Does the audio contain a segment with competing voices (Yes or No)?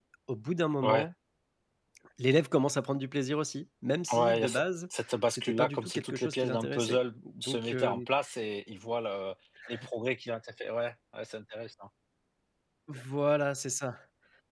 Yes